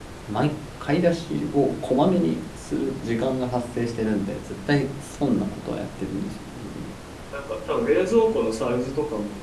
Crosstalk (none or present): none